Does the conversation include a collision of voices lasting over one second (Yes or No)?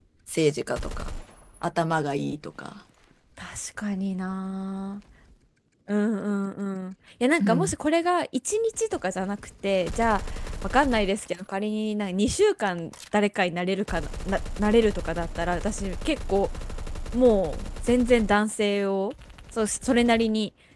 No